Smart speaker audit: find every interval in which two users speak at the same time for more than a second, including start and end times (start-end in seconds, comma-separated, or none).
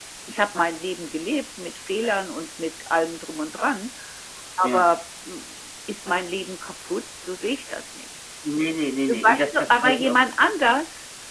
9.1-10.3